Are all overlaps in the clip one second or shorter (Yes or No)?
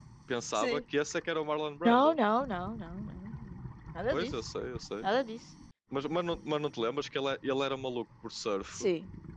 Yes